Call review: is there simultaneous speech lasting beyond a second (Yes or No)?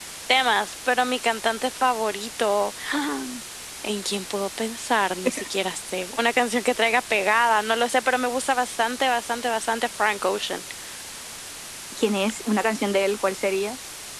No